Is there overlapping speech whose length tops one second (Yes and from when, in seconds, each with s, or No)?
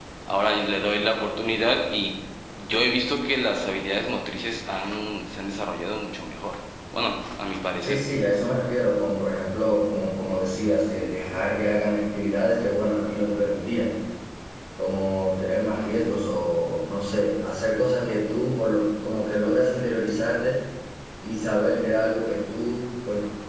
No